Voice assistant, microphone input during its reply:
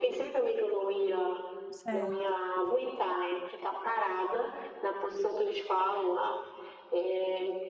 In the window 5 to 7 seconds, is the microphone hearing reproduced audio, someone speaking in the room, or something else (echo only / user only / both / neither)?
echo only